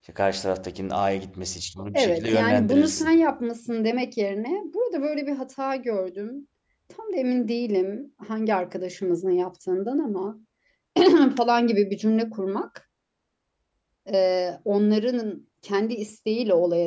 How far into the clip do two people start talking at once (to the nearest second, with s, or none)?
2 s